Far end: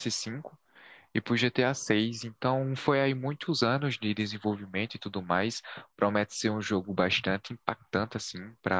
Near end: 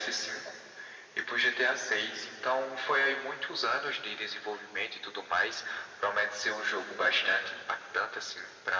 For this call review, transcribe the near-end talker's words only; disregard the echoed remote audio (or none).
none